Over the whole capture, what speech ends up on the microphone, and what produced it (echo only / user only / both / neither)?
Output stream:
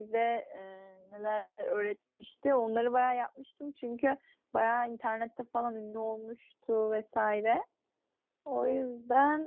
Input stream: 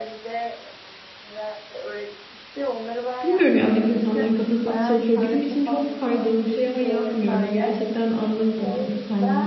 both